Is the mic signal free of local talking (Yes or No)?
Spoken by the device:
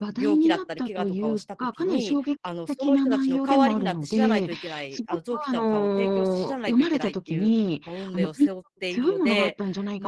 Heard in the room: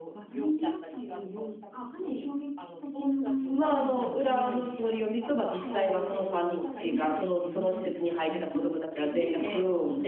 No